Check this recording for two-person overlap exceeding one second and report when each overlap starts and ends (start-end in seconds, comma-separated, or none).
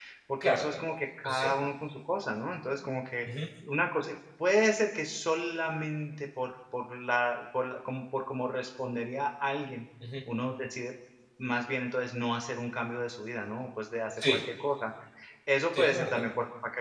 none